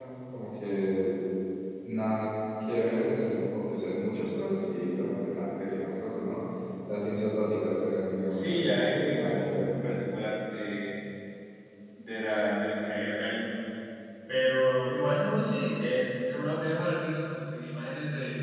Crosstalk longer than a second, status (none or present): present